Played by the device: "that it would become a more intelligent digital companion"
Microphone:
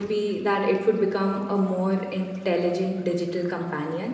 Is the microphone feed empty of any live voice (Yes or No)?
Yes